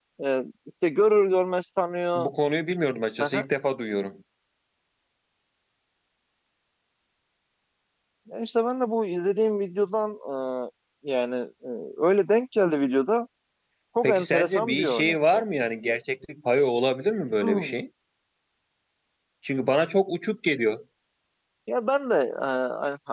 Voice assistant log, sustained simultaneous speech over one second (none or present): present